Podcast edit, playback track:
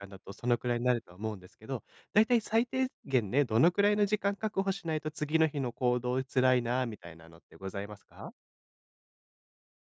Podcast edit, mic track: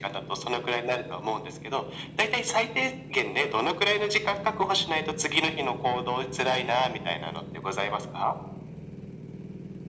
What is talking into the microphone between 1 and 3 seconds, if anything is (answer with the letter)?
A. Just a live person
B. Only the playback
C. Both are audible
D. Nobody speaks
B